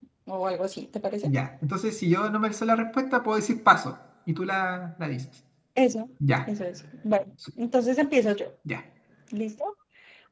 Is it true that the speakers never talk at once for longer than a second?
Yes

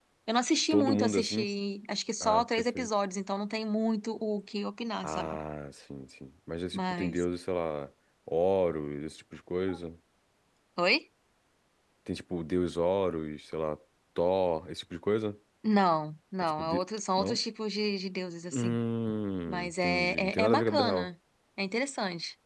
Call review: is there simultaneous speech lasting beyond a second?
Yes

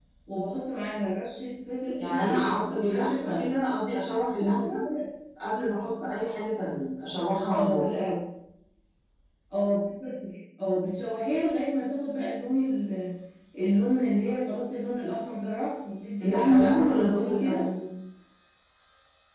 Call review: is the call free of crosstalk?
No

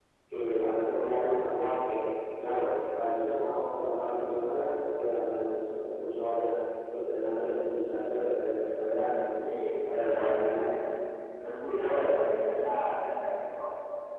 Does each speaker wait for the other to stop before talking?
No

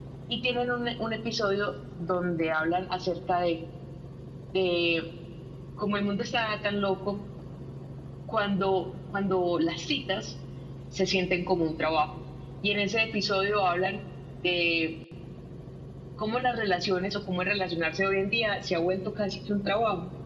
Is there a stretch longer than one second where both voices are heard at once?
No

